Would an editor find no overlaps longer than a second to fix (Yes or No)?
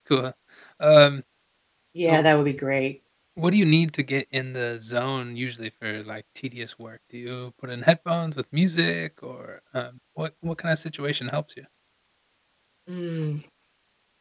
Yes